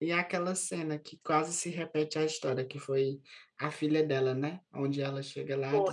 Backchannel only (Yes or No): Yes